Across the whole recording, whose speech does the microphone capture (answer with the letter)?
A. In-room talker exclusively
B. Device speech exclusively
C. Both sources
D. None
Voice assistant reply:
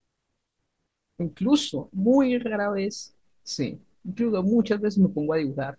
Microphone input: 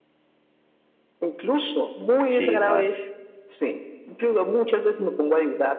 C